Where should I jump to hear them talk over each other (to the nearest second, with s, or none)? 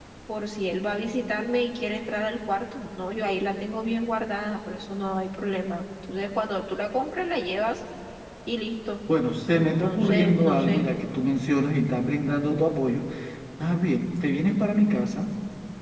10 s